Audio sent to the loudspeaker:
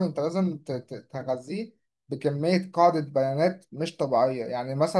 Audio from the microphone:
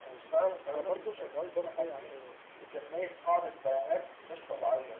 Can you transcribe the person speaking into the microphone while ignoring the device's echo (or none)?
انا برضو شغال برضو يعني